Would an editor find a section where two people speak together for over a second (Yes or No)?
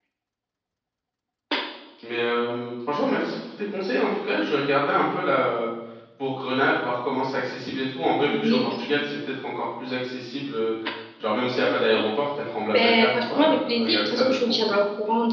Yes